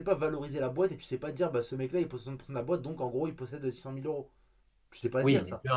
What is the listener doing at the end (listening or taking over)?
taking over